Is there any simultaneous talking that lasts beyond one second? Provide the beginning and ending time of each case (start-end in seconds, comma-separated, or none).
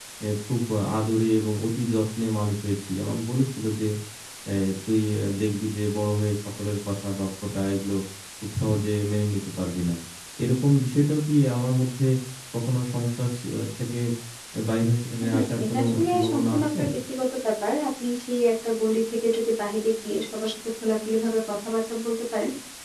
15.2-16.8